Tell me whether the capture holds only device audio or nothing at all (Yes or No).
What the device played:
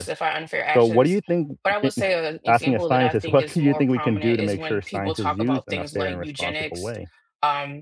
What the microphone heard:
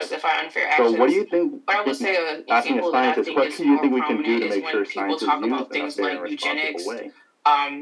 Yes